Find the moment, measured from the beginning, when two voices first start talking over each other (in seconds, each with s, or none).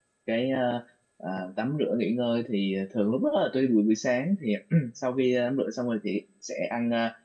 none